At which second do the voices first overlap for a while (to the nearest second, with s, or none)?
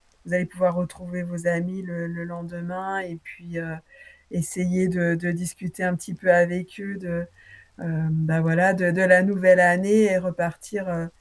none